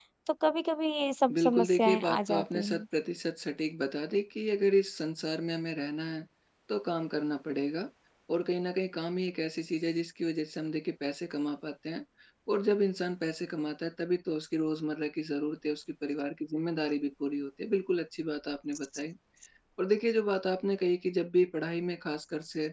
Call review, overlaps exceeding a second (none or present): present